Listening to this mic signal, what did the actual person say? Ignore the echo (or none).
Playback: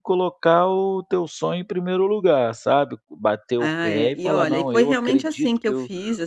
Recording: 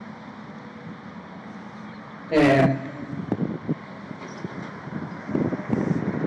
É.